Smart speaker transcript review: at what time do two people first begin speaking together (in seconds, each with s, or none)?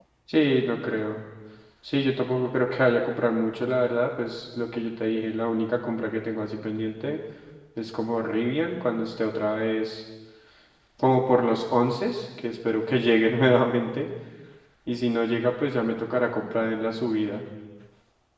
none